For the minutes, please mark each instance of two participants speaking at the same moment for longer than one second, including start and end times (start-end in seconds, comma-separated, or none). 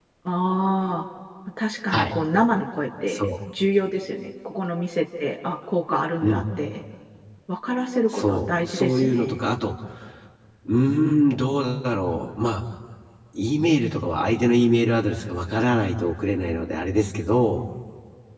8.1-9.4